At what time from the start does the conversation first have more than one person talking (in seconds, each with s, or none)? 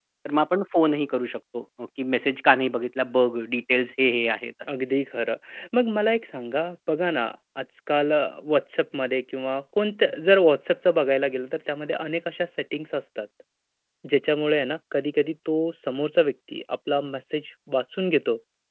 none